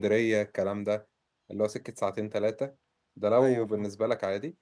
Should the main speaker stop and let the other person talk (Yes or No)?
No